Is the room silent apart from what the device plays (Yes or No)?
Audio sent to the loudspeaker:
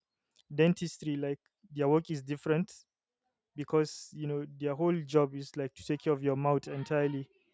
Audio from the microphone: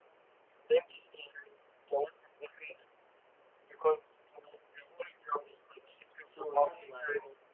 No